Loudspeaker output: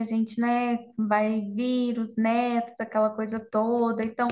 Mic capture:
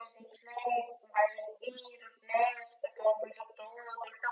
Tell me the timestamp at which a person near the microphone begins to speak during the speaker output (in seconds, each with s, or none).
none